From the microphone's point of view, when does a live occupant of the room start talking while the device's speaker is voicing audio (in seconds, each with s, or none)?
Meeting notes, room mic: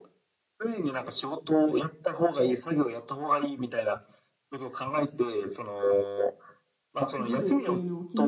7.1 s